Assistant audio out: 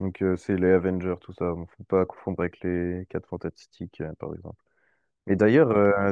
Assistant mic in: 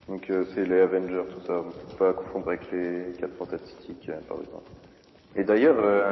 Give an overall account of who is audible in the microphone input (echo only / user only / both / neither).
echo only